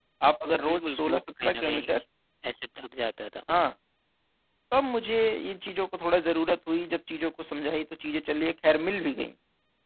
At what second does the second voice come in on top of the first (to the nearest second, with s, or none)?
1 s